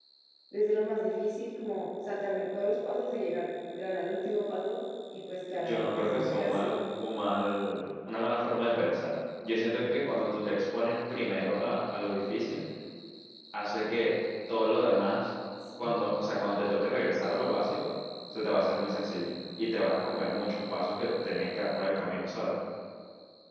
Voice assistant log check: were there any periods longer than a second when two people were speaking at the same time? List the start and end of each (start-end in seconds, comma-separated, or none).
5.6-6.8